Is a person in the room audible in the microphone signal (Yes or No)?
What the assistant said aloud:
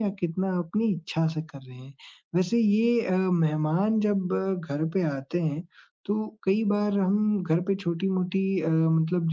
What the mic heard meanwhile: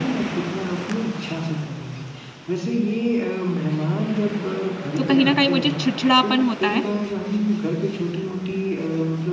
Yes